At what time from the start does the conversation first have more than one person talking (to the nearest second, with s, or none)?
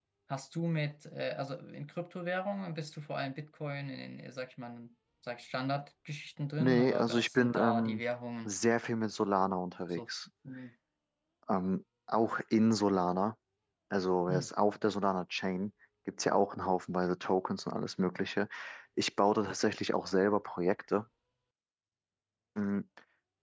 7 s